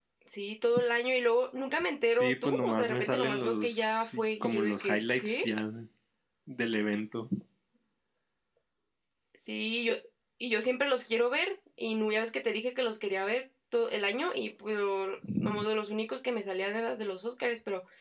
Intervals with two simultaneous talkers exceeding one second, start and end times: 2.1-5.4

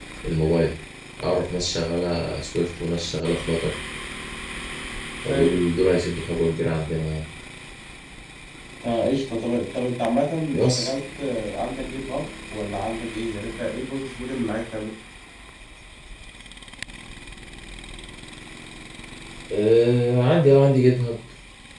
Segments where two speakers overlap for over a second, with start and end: none

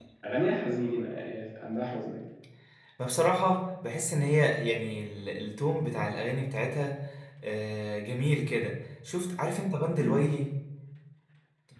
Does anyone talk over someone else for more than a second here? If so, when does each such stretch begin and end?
none

